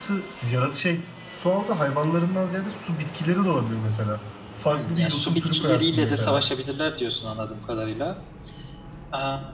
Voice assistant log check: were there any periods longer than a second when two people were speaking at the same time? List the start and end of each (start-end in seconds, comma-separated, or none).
4.7-6.5